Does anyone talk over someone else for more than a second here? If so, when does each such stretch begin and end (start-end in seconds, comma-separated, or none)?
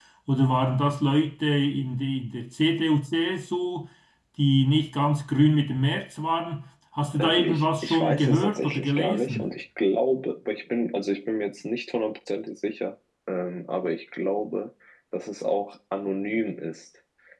7.2-9.5